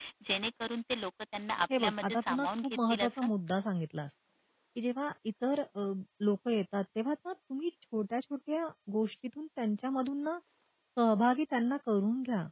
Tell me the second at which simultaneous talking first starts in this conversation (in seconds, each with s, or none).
1.7 s